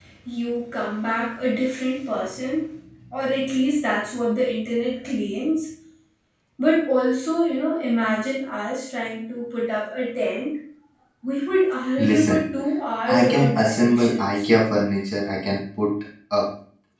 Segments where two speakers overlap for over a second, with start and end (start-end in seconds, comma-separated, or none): 13.1-14.4